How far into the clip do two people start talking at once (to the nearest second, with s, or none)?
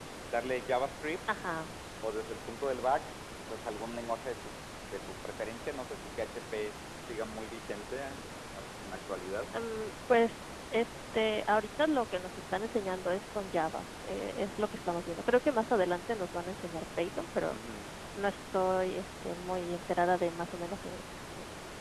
none